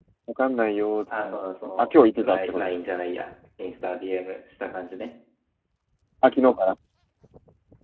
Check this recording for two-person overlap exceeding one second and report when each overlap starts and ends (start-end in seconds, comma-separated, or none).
1.2-2.7